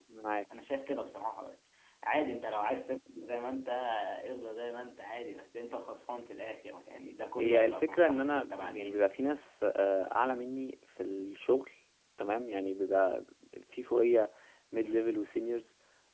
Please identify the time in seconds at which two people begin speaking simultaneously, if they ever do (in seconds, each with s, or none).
7.4 s